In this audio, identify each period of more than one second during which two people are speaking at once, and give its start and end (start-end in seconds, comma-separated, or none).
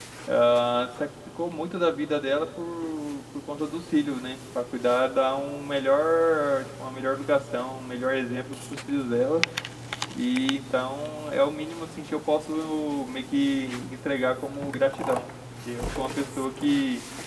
none